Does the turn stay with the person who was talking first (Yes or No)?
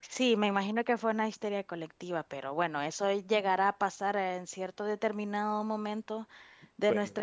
Yes